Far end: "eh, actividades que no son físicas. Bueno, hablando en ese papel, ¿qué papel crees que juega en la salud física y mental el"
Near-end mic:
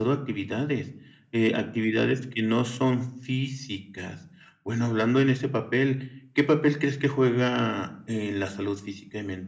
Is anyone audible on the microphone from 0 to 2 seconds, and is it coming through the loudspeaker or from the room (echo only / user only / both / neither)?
echo only